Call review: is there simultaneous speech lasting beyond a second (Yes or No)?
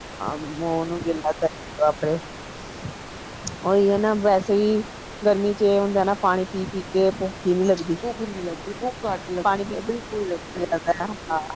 No